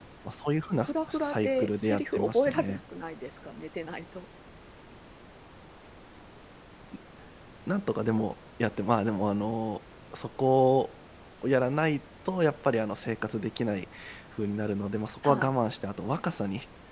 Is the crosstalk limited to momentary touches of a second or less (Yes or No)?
No